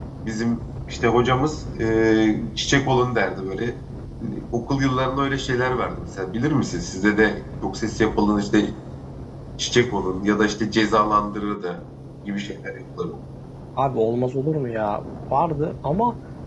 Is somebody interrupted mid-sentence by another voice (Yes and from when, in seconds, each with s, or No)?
No